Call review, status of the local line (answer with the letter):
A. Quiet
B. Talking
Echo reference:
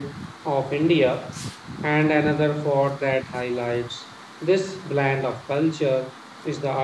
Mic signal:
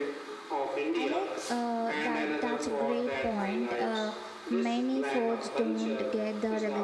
B